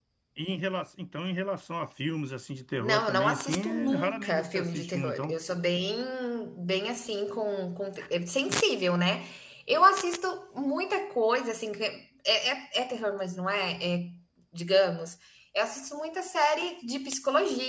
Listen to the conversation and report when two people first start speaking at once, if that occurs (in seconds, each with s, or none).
2.8 s